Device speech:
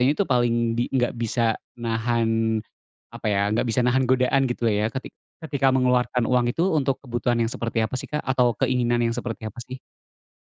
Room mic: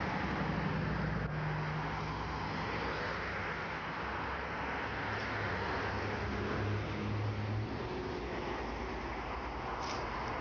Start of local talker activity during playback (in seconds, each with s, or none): none